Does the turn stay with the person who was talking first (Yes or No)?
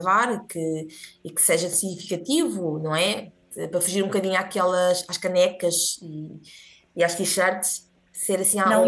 No